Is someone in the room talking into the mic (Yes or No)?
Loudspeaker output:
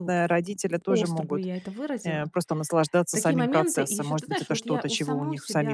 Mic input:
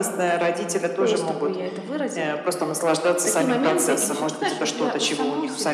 No